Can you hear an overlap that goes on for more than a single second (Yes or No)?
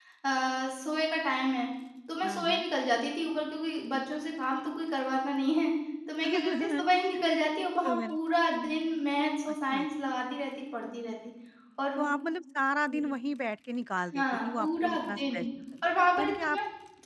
Yes